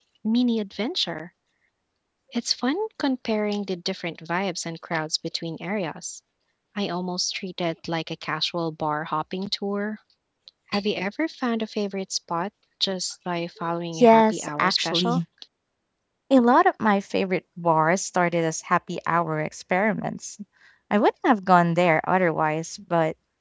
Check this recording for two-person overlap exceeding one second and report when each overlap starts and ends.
14.0-15.2

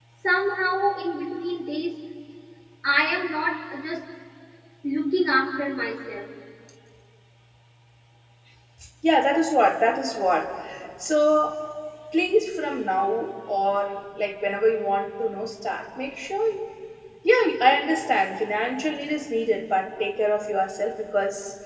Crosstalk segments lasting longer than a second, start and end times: none

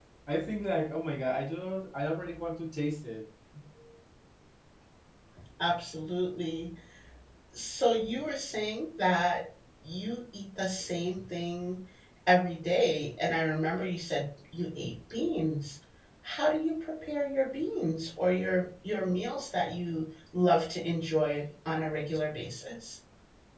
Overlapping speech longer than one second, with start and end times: none

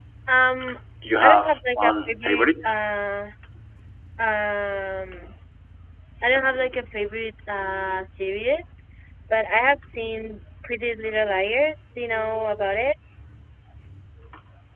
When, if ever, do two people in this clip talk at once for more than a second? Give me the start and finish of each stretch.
1.2-2.7

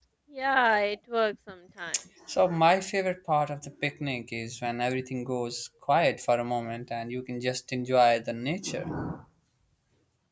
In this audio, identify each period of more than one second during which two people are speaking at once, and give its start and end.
none

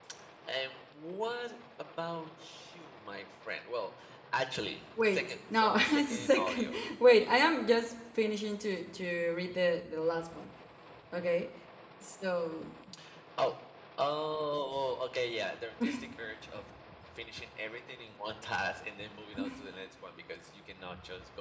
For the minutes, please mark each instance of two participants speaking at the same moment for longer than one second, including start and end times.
5.1-7.3

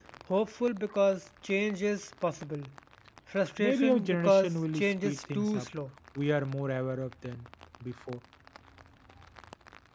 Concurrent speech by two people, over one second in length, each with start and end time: 3.6-5.7

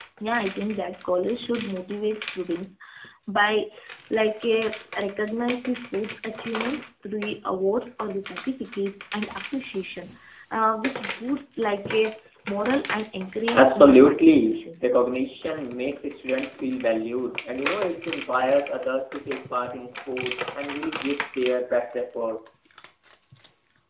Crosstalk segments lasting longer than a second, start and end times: 13.5-14.9

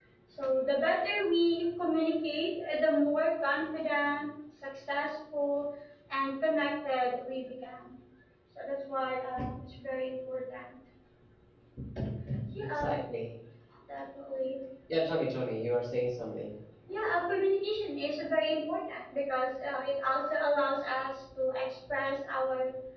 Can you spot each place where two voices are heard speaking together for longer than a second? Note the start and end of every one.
none

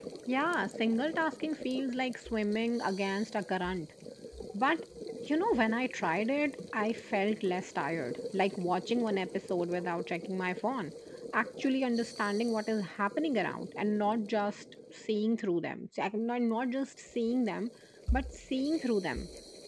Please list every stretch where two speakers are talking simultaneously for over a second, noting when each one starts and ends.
none

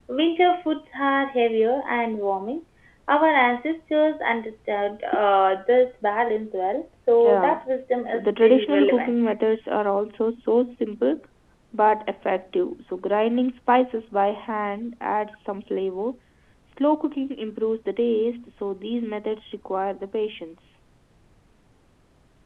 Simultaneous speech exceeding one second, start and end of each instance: 8.1-9.2

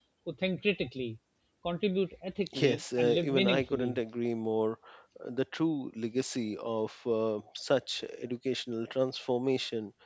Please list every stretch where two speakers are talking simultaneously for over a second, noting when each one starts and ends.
2.6-4.0

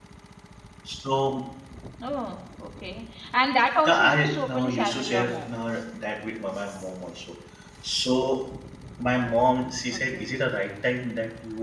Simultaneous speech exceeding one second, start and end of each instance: 3.9-5.5

